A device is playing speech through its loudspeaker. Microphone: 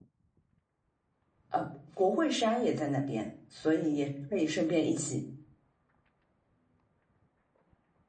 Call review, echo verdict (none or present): none